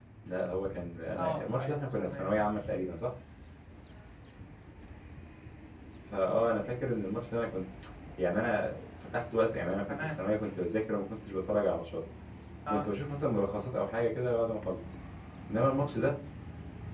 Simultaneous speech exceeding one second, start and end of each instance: 1.2-2.6

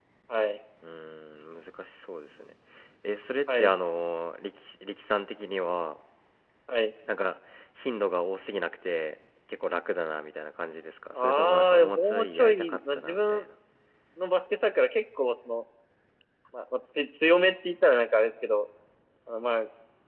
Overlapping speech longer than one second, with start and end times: 11.2-13.4

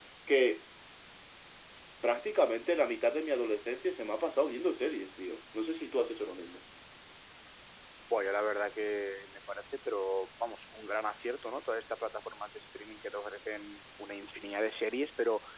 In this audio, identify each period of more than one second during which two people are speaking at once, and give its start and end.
none

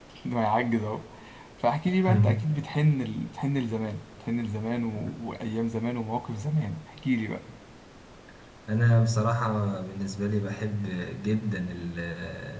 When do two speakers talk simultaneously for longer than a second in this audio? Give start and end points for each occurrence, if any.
none

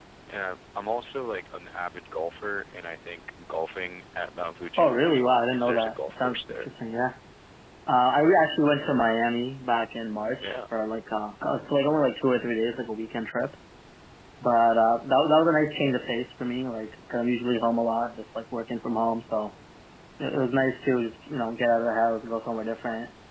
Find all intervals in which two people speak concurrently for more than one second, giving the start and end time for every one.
4.8-6.7

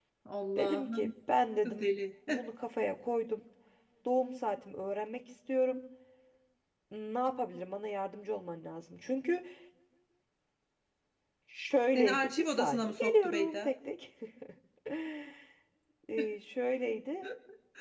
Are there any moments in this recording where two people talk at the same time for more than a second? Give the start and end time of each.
11.9-13.7

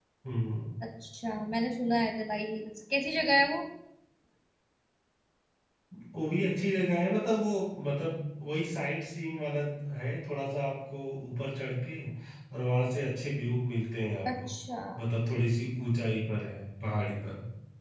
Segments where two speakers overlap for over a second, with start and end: none

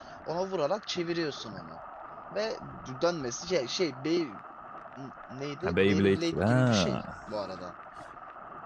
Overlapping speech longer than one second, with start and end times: 5.6-7.0

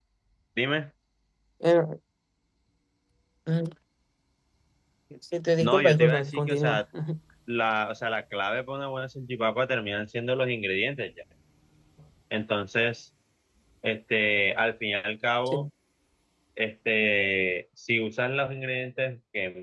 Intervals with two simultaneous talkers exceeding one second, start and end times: 5.6-6.8

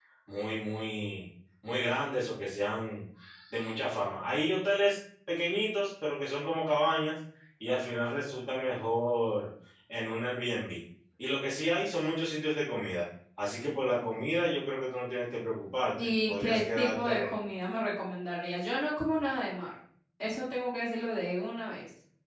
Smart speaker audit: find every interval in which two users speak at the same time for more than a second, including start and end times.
16.0-17.3

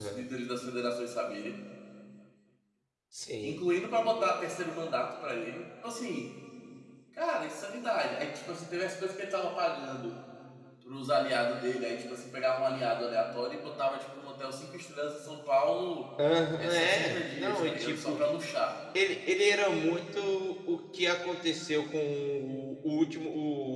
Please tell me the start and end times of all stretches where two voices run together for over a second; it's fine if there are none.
16.6-18.2

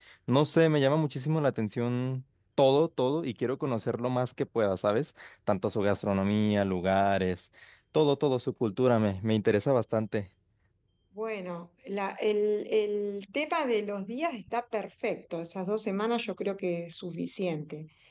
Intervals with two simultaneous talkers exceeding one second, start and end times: none

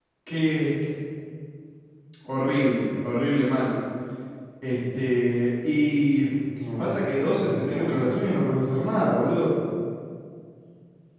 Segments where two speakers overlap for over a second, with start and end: 6.8-8.2

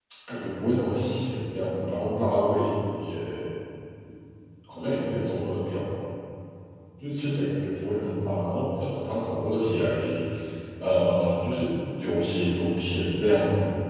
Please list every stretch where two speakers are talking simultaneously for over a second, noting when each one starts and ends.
none

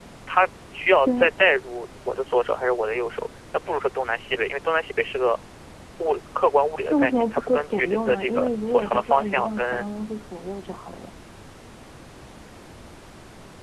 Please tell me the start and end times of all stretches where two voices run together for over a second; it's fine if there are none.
6.9-9.8

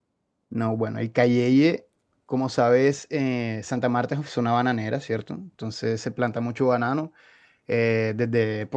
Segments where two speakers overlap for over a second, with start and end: none

